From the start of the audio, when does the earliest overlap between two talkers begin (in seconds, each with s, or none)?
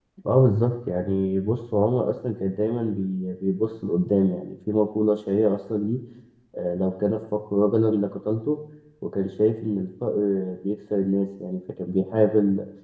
none